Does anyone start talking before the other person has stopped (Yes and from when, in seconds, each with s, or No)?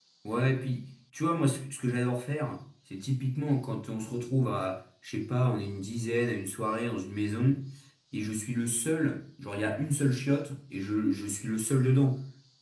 No